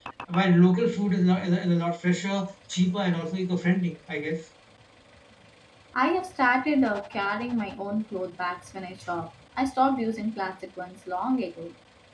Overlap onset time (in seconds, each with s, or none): none